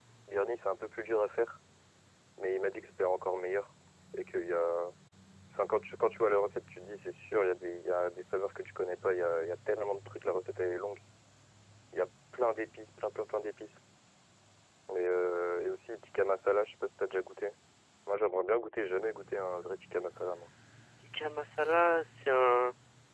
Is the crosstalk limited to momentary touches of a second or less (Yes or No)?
Yes